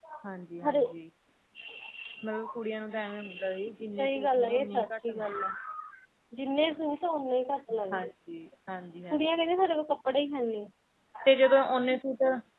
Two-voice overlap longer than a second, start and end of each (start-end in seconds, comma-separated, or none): 4.0-5.2